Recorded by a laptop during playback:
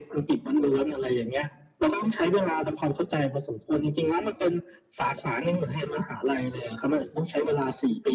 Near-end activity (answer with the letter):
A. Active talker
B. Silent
B